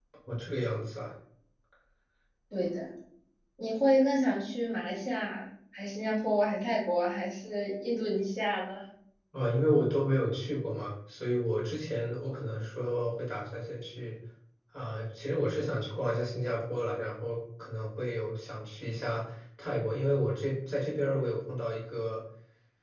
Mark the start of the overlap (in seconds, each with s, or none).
none